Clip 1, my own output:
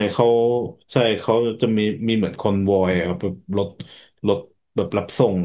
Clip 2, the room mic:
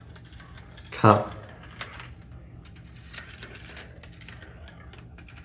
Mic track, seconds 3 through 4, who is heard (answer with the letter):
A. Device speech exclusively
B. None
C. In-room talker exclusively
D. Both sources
B